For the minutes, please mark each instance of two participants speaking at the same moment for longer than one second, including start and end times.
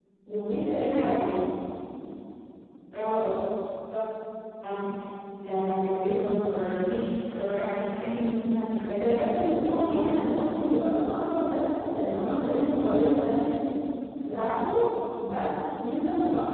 9.0-10.3

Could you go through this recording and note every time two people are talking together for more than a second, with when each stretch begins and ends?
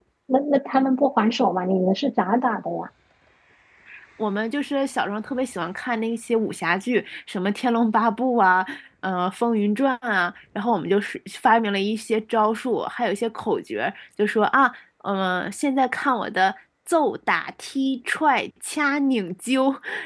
none

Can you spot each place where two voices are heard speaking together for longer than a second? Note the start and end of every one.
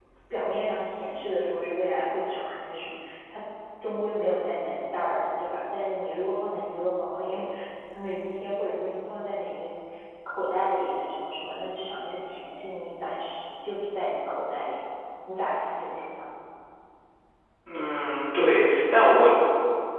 none

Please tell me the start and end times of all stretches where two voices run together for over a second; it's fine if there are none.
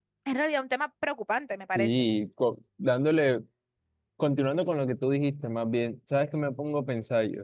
none

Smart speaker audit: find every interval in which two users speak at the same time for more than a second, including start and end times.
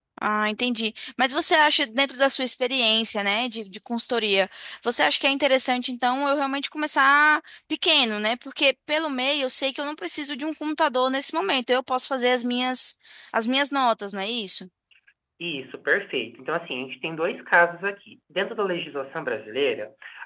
none

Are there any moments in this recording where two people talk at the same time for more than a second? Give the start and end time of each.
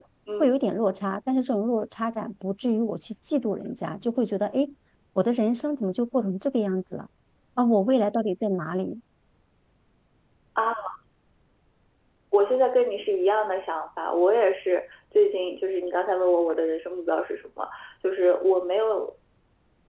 none

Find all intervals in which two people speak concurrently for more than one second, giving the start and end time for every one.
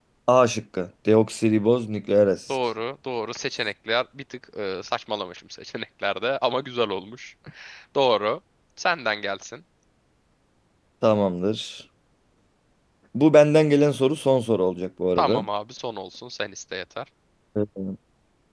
none

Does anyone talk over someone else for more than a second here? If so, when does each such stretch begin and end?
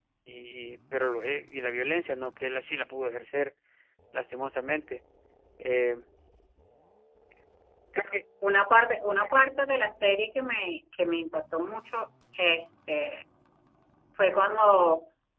none

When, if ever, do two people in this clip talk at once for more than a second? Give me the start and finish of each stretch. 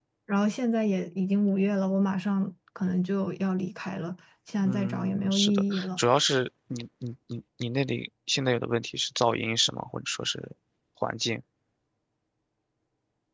4.6-6.0

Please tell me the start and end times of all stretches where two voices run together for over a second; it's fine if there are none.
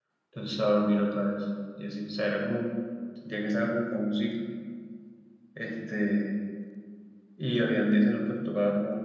none

